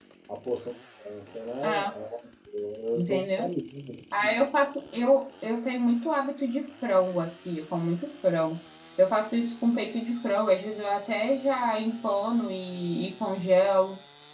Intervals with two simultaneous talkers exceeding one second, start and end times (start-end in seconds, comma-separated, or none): none